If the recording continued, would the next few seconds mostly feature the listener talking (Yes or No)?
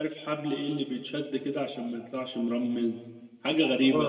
Yes